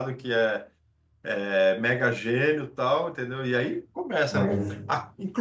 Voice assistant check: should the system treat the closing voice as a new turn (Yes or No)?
No